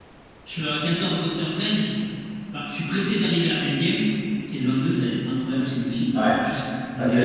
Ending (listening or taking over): taking over